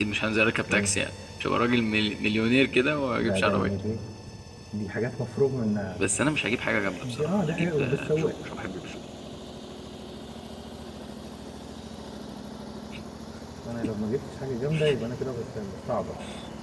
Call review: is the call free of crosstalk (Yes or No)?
No